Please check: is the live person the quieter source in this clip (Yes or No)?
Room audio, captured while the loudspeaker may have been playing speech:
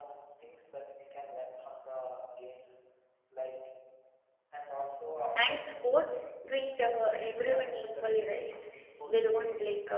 No